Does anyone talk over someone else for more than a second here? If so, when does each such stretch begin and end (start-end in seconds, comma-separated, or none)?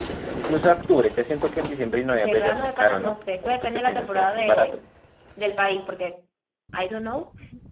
2.1-4.8